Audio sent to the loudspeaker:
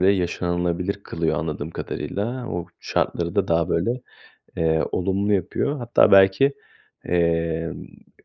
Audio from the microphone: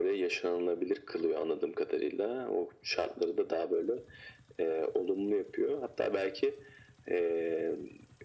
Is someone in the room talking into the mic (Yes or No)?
No